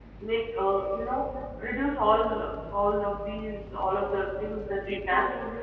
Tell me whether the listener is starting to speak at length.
No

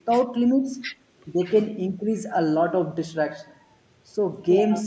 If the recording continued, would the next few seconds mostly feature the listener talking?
No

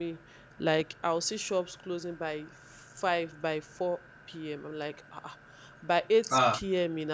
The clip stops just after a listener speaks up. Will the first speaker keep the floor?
Yes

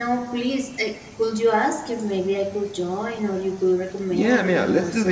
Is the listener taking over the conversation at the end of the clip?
Yes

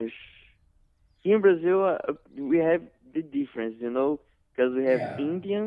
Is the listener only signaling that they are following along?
Yes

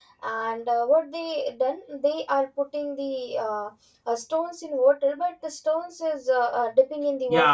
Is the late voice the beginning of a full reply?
Yes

